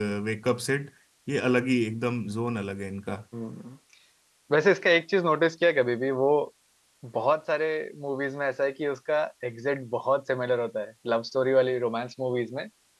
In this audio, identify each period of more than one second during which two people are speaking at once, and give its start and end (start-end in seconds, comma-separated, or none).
none